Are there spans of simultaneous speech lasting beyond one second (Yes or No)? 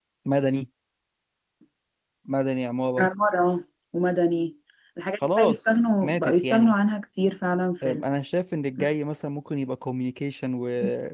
Yes